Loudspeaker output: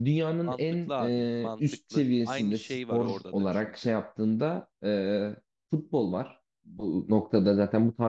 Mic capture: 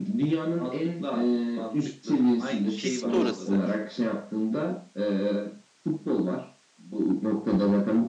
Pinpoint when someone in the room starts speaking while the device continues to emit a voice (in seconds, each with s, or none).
2.8 s